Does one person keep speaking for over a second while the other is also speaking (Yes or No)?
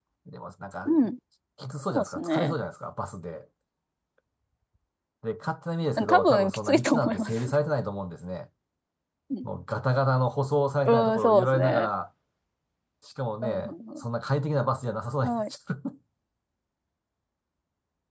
Yes